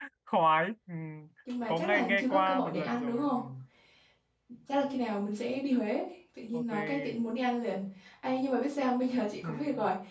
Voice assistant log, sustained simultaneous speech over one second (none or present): present